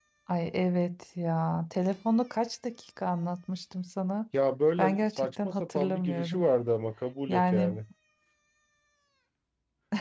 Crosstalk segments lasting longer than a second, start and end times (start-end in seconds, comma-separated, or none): 4.8-6.4